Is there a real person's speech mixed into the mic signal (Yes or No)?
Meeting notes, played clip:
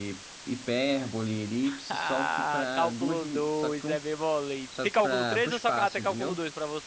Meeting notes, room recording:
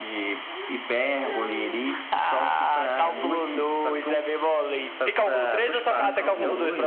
Yes